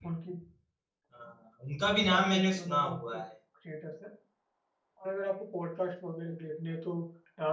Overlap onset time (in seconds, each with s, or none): 1.9 s